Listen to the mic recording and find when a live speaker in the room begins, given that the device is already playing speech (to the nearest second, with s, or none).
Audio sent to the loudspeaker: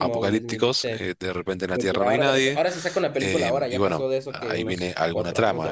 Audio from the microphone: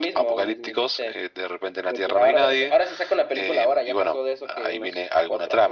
none